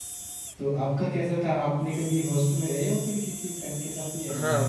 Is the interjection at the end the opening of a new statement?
Yes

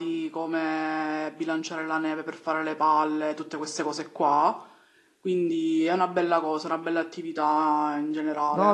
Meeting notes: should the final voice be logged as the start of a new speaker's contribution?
Yes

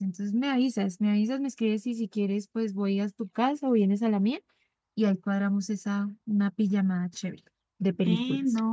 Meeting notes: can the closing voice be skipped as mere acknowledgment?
No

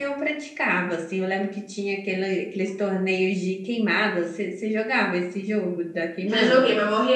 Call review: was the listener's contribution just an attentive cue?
No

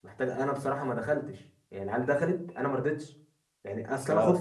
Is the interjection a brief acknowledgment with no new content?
Yes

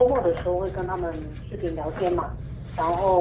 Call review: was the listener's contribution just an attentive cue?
Yes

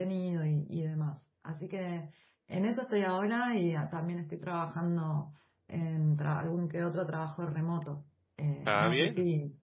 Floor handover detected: No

